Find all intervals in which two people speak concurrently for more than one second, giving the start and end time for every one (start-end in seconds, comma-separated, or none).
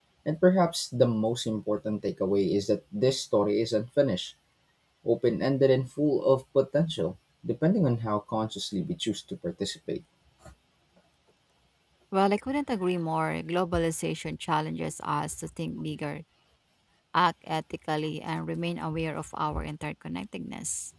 none